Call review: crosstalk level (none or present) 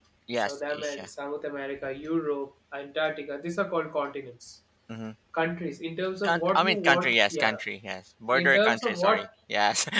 present